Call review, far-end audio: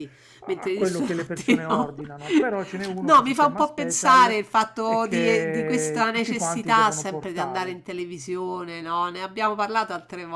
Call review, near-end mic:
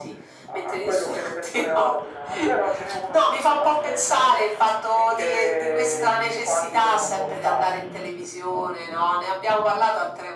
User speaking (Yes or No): No